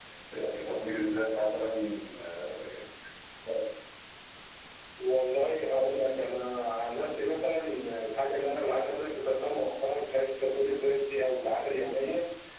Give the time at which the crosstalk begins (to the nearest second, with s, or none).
none